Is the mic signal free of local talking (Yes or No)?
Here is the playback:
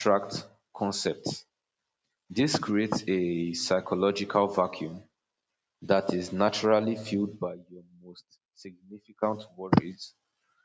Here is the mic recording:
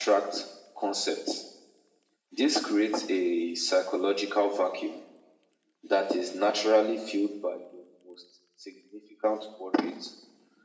Yes